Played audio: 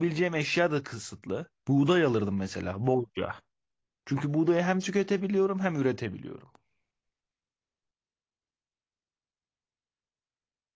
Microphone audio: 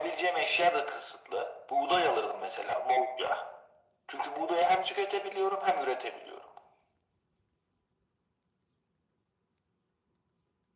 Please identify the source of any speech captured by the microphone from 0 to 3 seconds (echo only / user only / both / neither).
echo only